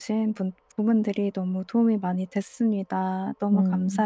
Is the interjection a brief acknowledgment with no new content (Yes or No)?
No